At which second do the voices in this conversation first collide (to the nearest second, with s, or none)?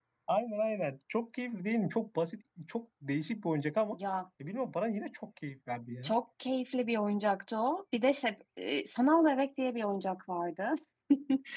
none